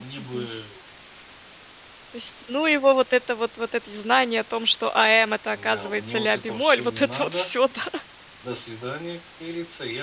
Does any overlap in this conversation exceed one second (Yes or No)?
Yes